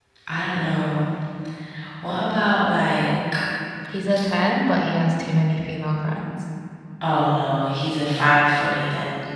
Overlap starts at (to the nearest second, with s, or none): none